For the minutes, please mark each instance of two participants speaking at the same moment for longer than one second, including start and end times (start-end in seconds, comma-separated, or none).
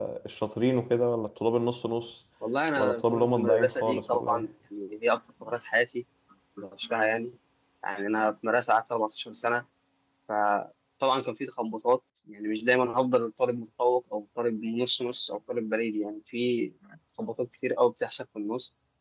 2.8-4.5